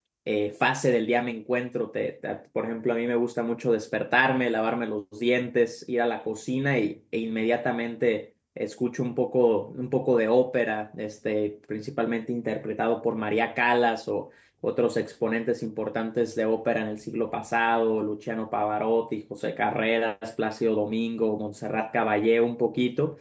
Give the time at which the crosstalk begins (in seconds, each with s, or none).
none